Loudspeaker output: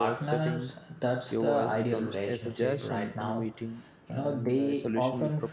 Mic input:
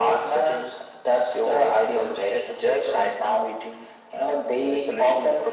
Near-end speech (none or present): none